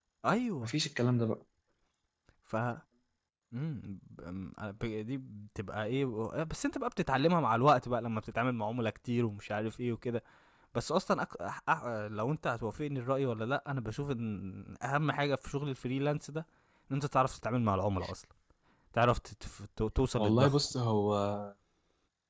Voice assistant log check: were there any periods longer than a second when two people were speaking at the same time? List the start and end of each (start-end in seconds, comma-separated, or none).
none